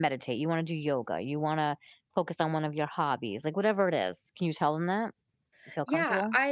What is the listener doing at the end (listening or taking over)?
taking over